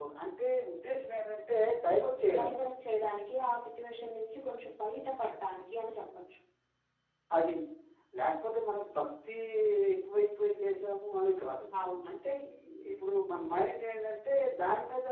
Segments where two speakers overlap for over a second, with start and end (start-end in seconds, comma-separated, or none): none